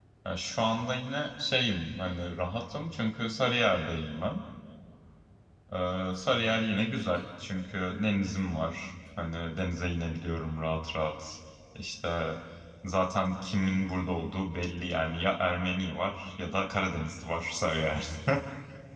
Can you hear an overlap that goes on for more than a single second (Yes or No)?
No